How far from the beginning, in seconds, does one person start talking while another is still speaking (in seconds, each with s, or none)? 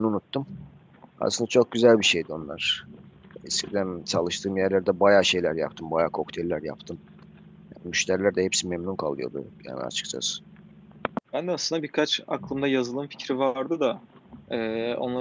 none